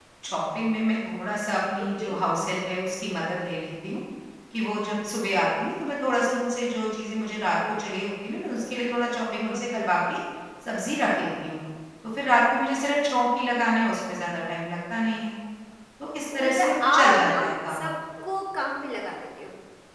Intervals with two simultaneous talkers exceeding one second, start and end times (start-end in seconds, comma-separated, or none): 16.3-17.9